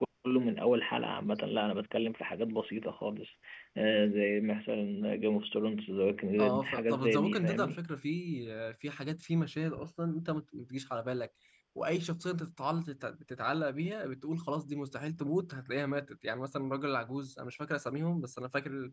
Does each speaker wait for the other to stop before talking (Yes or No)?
No